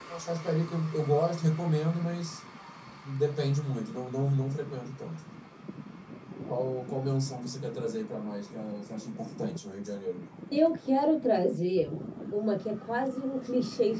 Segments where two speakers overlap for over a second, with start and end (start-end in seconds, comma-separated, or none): none